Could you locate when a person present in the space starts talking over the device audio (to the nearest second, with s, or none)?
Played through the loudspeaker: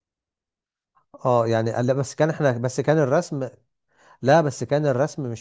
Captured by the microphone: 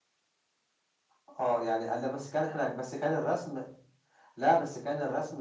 none